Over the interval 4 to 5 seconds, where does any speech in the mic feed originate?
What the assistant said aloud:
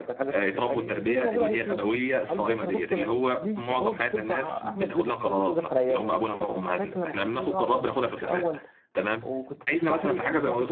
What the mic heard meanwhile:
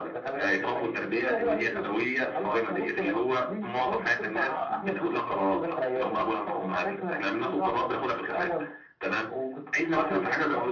echo only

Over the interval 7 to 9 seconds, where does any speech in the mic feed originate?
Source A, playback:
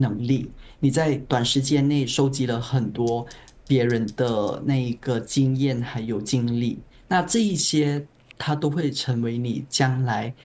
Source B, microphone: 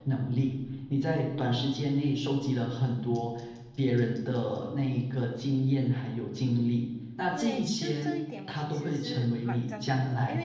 both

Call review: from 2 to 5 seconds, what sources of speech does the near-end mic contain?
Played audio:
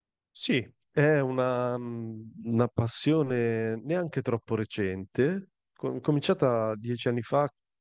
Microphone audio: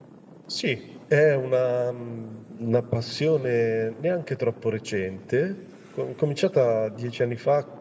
echo only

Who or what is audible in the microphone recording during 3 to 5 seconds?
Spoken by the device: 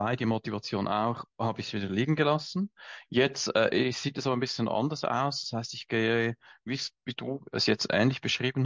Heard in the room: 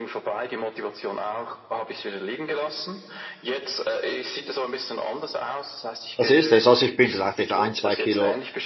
echo only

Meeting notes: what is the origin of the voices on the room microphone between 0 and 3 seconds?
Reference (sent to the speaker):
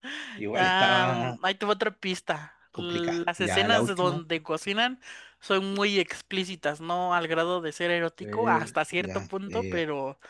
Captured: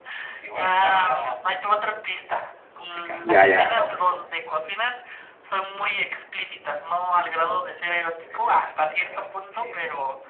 echo only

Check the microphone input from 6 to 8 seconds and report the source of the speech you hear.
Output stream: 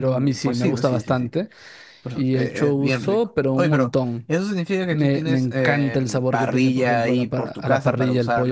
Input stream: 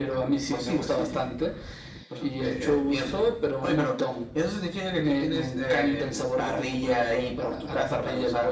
echo only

